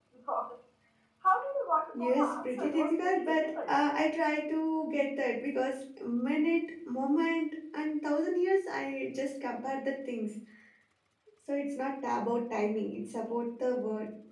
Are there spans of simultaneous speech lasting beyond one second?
Yes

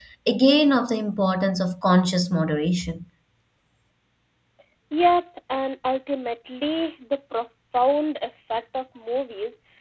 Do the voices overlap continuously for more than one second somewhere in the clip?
No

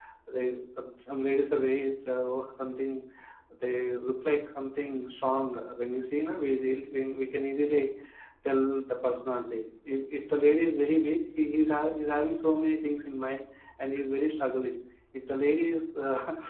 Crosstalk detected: No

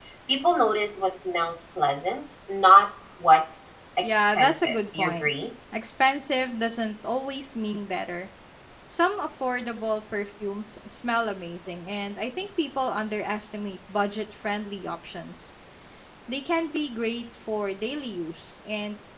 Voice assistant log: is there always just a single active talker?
No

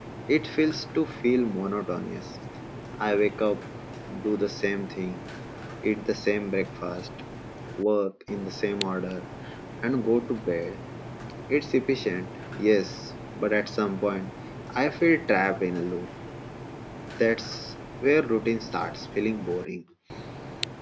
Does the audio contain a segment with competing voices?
No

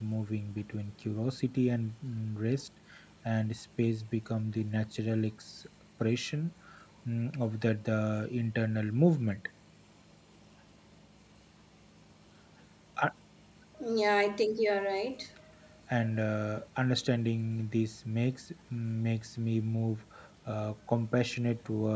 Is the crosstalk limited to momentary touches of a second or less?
Yes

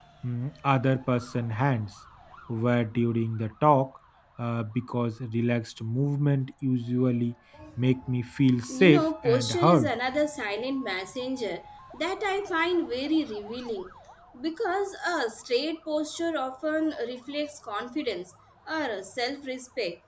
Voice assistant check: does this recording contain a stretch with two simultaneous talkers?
Yes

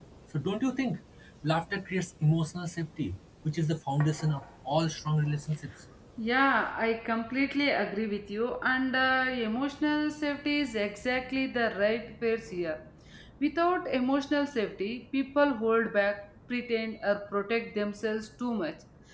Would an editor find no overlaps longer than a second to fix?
Yes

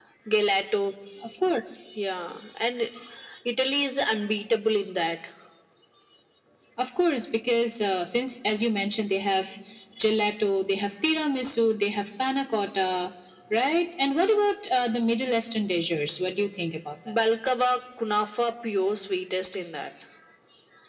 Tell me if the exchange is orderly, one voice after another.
Yes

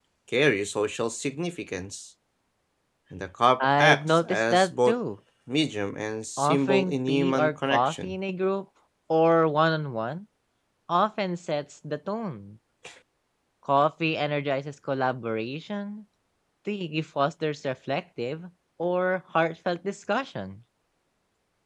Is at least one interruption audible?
Yes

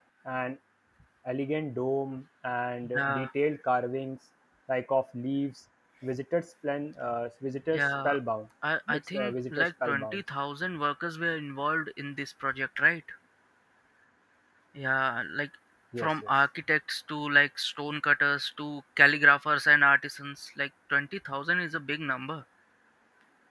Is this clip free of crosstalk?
No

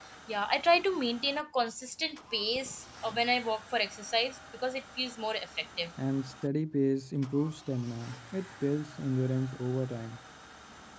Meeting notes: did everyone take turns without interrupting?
Yes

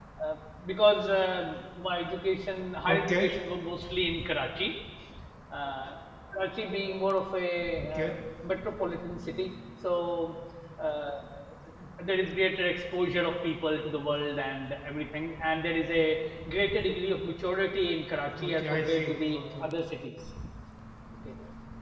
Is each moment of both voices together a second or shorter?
No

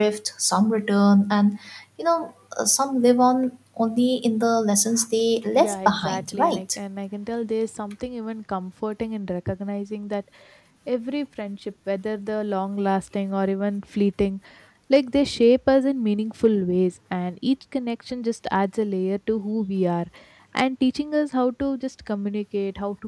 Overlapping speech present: Yes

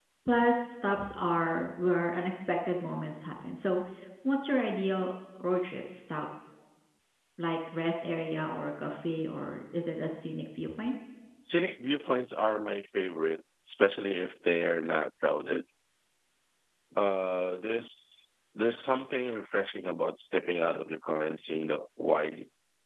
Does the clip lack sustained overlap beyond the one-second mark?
Yes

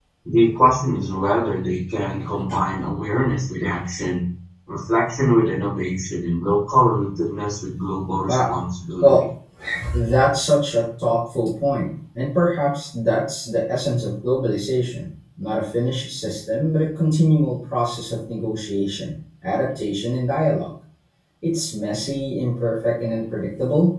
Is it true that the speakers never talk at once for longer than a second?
Yes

